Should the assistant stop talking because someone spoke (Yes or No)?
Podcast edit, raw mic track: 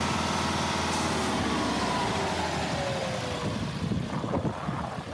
No